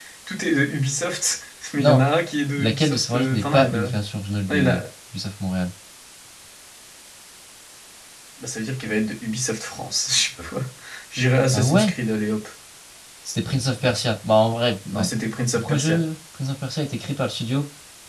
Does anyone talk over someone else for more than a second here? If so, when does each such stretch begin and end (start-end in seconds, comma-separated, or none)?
2.6-3.9